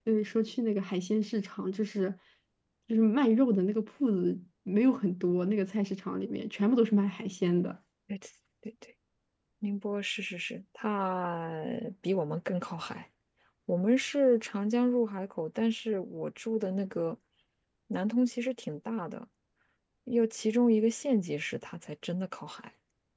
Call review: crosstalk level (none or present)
none